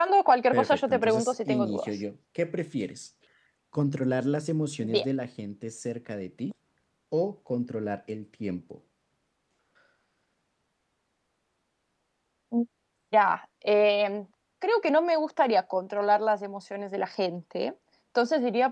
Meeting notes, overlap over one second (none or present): present